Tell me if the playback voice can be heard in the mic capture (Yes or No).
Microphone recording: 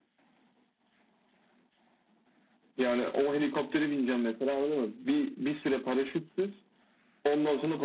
Yes